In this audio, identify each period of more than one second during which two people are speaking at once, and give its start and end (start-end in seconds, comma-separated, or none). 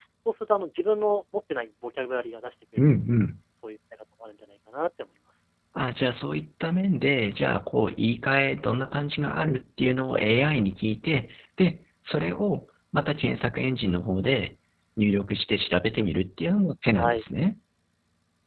none